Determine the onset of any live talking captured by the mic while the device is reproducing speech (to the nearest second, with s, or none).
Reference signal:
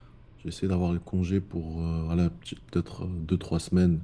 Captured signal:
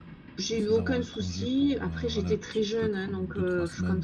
0 s